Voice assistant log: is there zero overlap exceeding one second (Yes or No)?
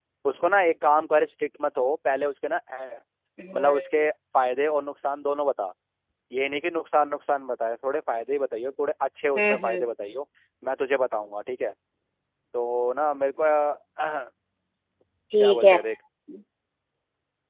Yes